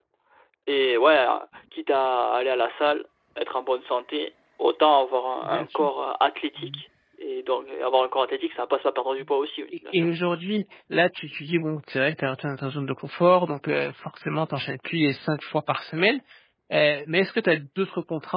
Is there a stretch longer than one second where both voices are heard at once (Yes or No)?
No